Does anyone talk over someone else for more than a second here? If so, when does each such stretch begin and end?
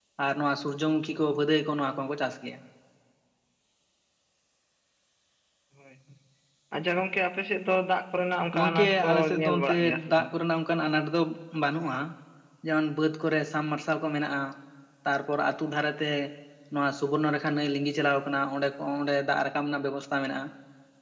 8.6-10.3

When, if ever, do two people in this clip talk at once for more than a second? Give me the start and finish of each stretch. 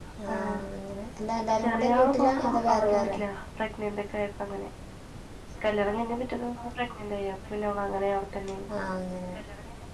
1.6-3.2

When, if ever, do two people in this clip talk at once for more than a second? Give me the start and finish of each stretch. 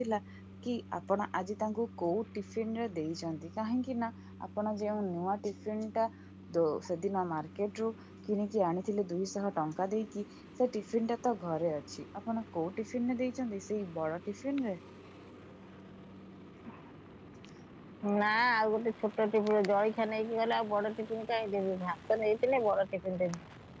none

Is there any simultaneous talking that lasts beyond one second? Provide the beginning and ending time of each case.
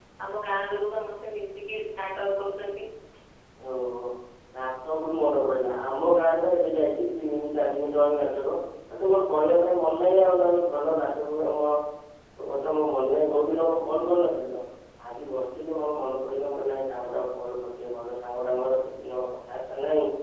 none

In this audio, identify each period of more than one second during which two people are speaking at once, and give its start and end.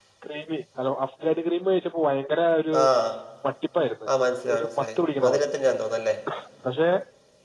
4.2-5.5

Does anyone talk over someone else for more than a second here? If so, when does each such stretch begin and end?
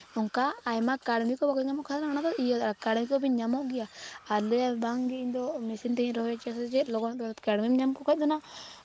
none

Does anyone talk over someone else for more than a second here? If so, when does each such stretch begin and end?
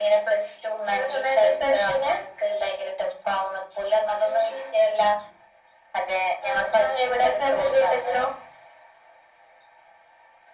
0.9-2.1, 6.5-8.2

